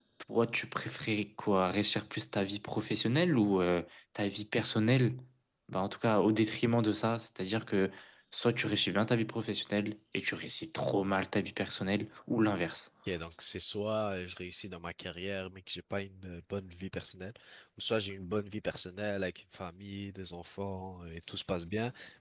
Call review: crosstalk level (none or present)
none